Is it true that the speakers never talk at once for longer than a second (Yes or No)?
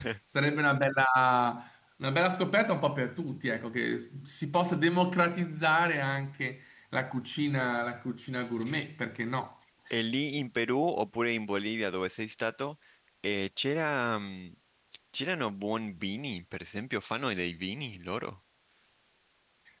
Yes